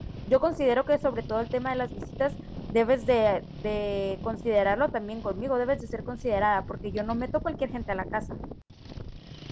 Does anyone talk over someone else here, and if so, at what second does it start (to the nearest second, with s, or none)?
none